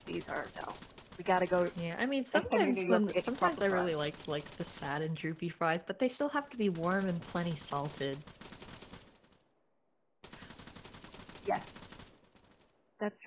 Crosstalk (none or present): present